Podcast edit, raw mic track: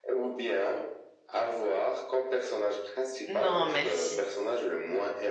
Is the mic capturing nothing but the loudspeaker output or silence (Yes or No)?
No